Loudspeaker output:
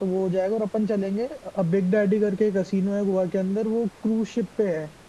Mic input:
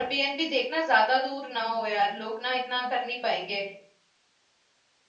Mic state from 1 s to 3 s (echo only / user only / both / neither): user only